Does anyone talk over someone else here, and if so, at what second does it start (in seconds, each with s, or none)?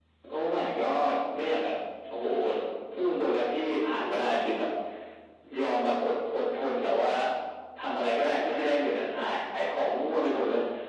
none